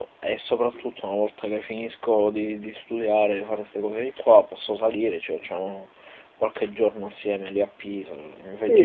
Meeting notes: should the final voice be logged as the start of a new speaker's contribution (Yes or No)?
Yes